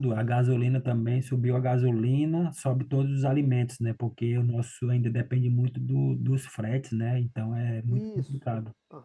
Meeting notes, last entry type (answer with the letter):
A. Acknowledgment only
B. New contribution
B